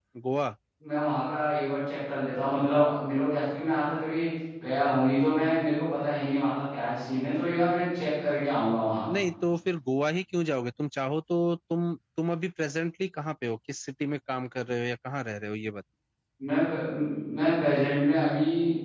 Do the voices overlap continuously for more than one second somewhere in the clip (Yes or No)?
No